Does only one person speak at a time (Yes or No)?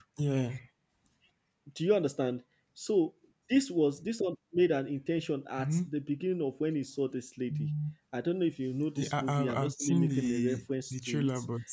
No